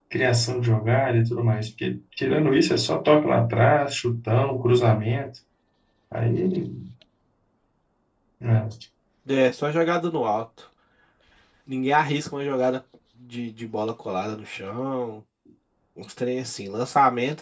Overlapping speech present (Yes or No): No